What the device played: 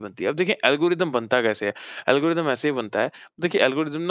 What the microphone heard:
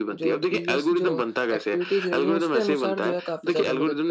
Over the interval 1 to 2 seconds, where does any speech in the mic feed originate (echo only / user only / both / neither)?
both